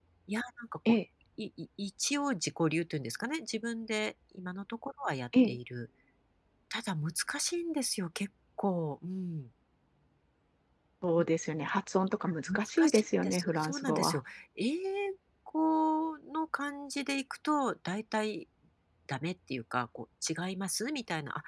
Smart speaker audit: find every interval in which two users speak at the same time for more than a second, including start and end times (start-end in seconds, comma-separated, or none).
12.5-14.2